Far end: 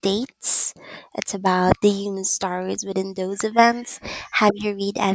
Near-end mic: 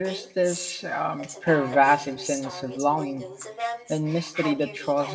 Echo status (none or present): present